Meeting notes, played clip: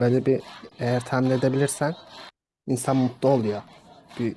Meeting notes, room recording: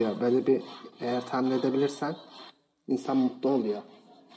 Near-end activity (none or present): none